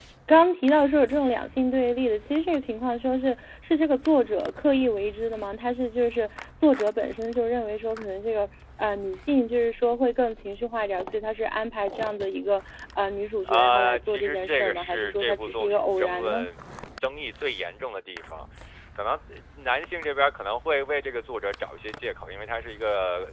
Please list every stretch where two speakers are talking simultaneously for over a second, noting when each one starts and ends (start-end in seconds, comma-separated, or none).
13.4-16.4